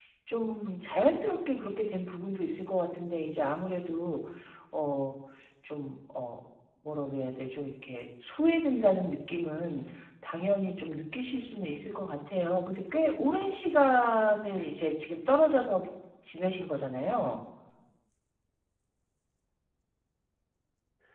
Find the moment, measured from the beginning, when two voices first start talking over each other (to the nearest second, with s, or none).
none